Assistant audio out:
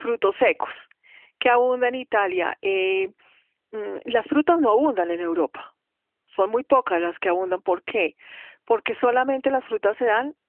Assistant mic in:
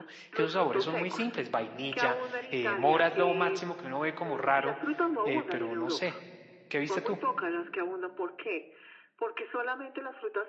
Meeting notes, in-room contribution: present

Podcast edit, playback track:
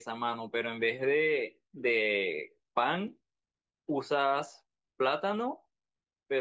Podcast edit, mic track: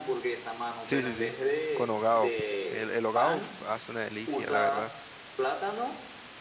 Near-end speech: present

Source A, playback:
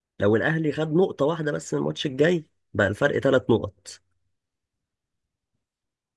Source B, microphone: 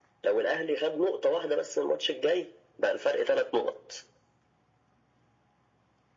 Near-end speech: none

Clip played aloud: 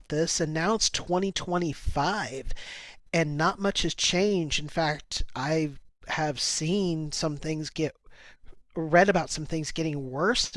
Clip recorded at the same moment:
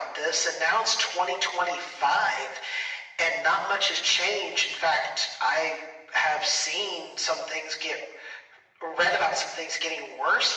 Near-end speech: none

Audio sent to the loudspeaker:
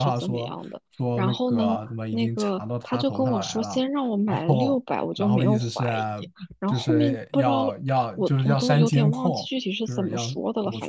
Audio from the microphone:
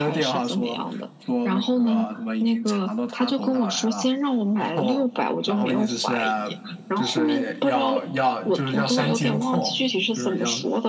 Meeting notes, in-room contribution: none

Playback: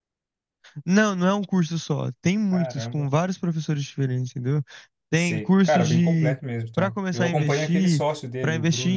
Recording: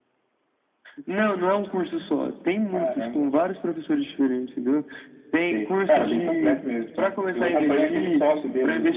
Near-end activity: none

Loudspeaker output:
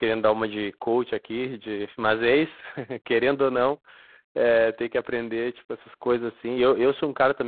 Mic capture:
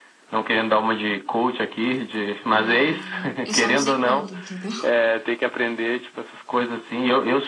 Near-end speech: present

